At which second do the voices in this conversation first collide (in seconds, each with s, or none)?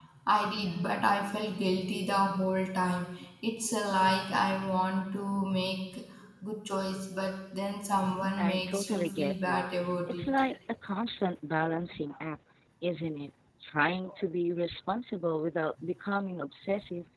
7.9 s